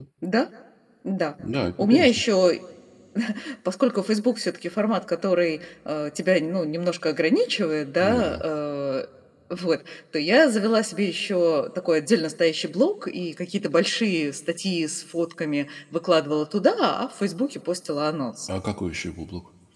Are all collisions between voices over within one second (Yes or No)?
Yes